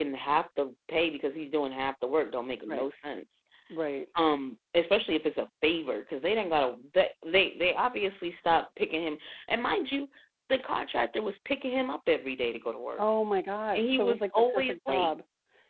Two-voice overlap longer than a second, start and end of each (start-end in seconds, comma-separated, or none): 13.7-15.1